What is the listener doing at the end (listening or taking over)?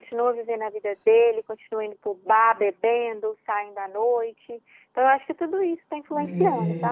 taking over